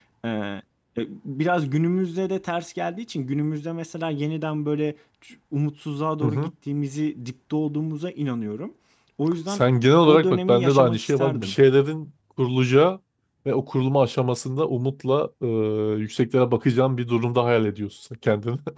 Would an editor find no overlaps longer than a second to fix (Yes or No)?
No